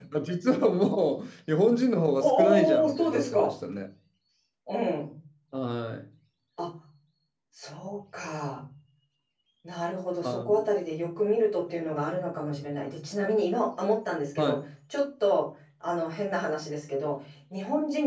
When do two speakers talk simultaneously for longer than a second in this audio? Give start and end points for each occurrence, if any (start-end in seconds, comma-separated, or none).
2.2-3.5